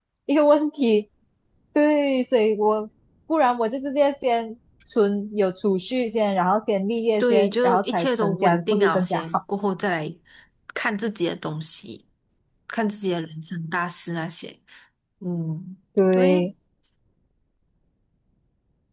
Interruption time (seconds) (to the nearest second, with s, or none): 7 s